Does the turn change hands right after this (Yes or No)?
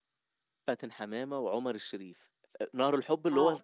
No